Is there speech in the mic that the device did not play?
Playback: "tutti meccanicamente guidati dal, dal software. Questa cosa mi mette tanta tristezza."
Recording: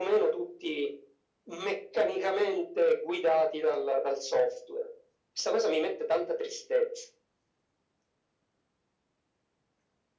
No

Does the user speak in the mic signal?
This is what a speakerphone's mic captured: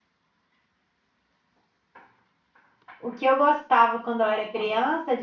Yes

